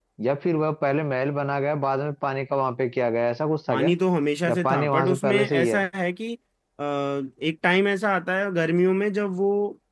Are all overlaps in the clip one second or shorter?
No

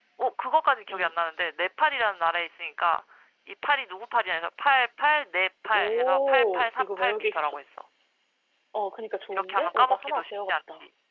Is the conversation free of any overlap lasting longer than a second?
No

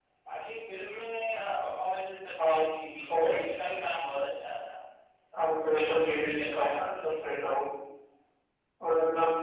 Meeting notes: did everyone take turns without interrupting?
No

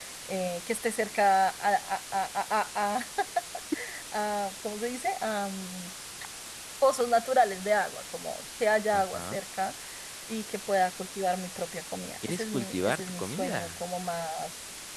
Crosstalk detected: Yes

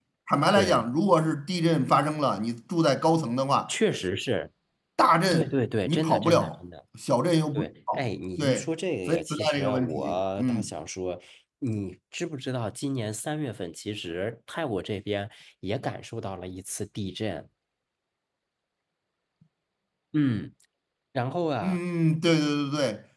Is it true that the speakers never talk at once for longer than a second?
No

